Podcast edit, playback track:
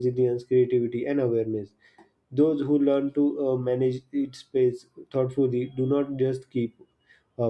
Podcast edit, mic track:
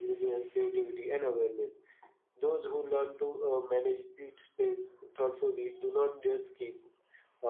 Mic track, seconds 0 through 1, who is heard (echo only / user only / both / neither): echo only